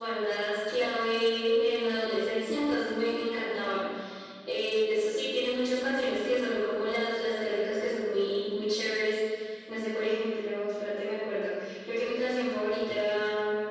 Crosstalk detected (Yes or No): No